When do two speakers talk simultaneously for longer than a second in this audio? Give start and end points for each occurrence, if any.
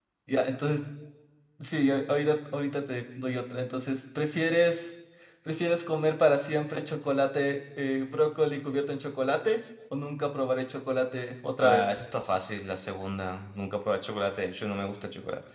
none

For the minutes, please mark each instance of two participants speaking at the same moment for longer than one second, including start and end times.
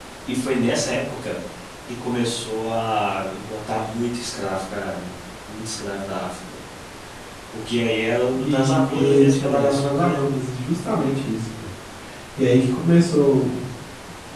8.3-10.2

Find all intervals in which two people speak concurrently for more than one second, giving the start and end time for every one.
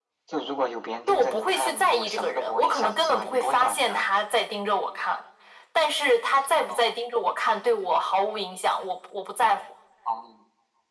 1.1-4.0

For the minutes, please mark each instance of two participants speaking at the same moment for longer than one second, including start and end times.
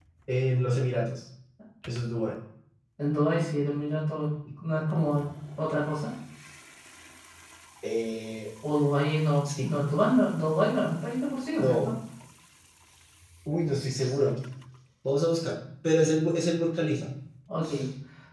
none

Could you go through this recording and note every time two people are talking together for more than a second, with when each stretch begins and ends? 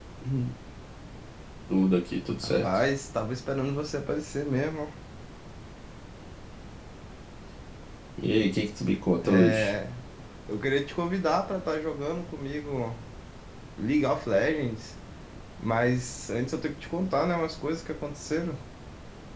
none

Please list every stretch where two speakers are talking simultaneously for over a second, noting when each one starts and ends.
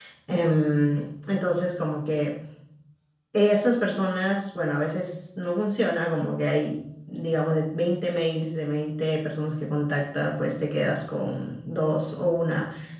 none

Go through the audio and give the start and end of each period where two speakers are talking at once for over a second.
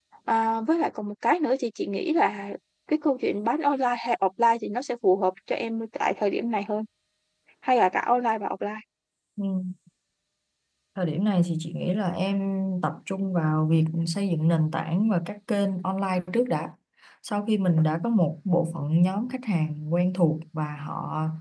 none

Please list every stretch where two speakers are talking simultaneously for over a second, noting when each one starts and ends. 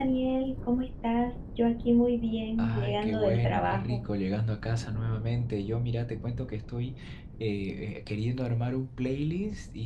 2.6-4.0

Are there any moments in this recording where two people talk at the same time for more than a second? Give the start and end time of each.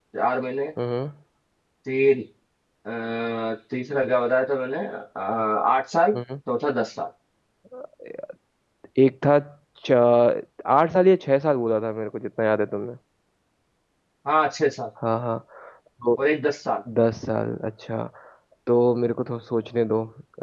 none

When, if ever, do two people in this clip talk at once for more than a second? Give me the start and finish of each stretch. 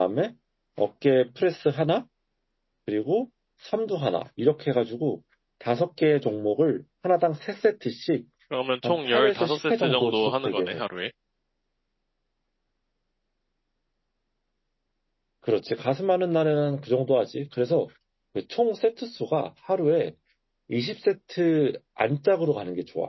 9.0-10.8

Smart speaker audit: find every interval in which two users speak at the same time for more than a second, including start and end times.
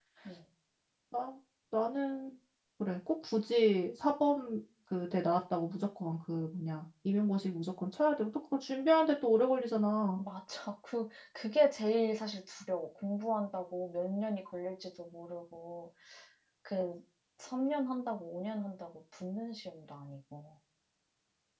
none

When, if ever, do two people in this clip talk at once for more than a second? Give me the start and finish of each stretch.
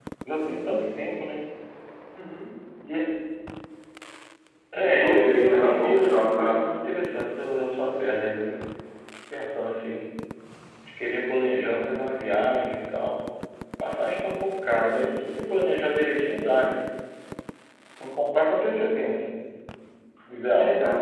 4.8-6.6

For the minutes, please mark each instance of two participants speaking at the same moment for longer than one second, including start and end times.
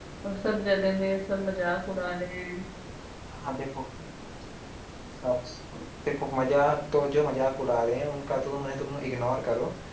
none

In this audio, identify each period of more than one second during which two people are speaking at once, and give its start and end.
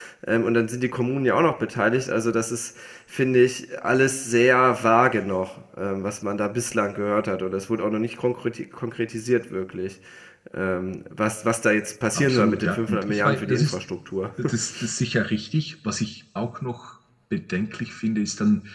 12.1-13.8

